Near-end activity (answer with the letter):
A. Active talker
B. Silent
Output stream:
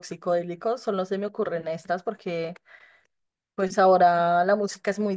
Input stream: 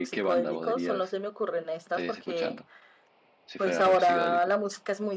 A